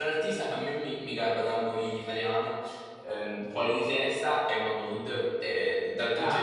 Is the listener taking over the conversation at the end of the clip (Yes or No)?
No